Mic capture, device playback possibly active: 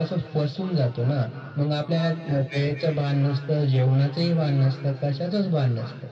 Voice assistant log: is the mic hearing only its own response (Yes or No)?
Yes